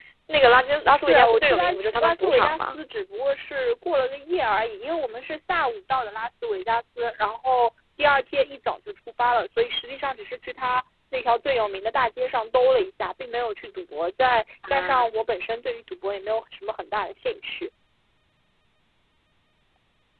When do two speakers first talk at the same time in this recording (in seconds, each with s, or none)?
0.9 s